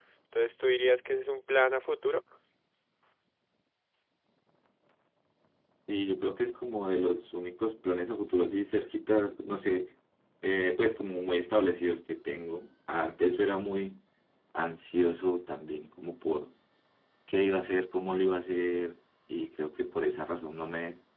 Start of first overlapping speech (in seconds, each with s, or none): none